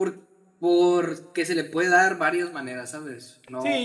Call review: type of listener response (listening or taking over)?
taking over